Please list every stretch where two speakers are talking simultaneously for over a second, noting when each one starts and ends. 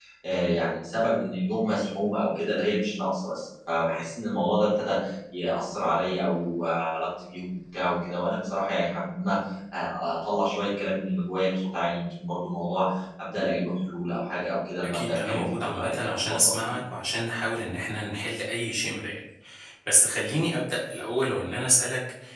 14.8-16.7

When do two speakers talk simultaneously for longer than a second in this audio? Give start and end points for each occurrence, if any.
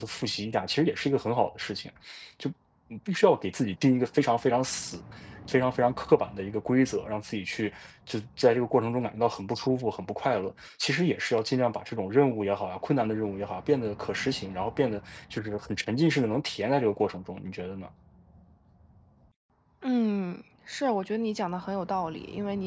none

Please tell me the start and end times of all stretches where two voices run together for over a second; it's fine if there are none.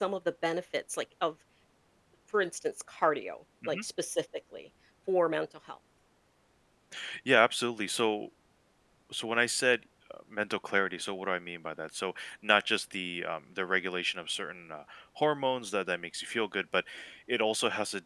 none

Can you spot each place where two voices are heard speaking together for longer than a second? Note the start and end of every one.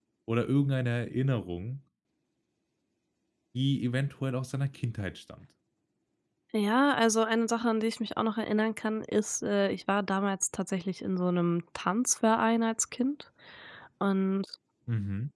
none

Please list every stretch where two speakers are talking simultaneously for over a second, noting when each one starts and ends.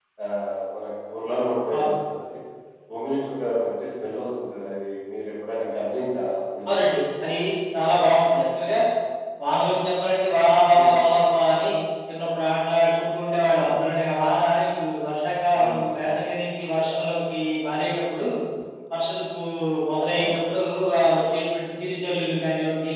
none

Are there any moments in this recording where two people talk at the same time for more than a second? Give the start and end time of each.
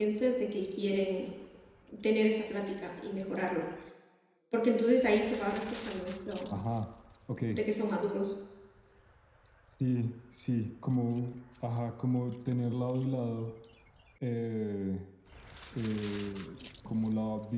none

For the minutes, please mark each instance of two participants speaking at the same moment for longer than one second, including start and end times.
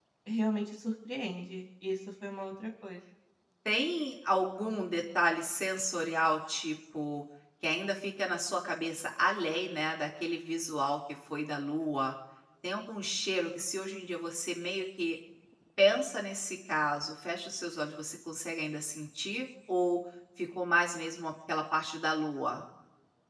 none

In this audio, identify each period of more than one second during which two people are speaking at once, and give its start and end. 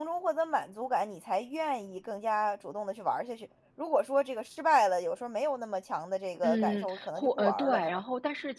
6.4-8.0

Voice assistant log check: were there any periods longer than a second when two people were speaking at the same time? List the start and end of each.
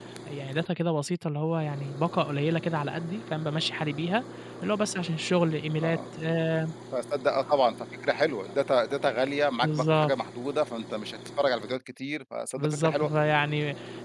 none

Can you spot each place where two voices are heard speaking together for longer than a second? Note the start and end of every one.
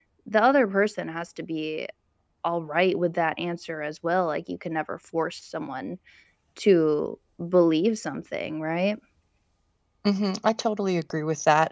none

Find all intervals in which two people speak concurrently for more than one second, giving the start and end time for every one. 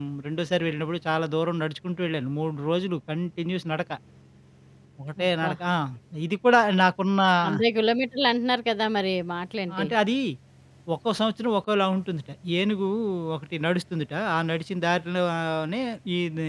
none

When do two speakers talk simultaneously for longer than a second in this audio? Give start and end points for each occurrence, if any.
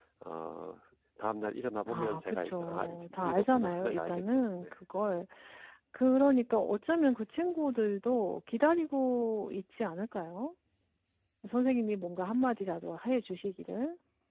1.9-4.7

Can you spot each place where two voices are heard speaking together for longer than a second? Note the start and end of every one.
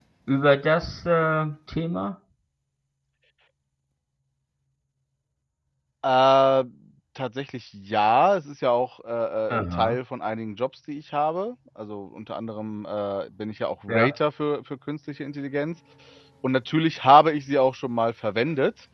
none

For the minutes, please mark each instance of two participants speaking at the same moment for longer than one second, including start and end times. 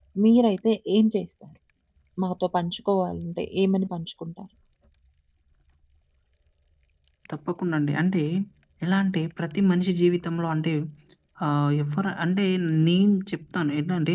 none

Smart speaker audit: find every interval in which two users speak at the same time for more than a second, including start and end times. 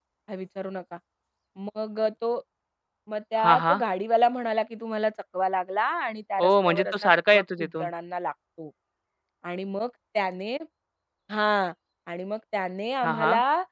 6.4-7.9

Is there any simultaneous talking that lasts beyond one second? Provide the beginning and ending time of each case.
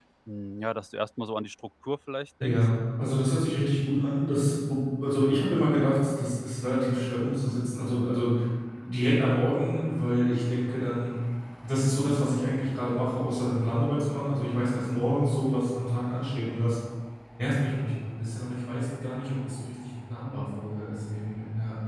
none

